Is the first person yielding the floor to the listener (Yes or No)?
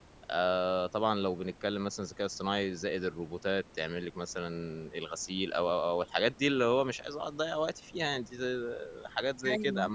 No